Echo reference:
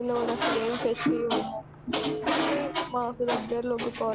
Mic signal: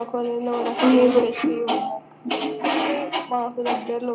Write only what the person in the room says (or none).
అవును.